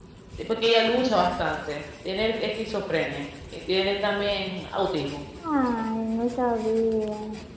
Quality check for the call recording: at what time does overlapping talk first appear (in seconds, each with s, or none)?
none